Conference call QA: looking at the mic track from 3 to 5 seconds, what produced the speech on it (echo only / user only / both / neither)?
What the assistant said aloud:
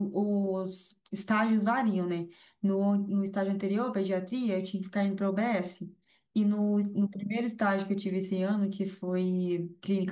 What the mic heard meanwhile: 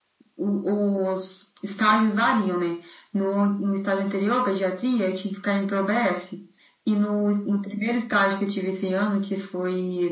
echo only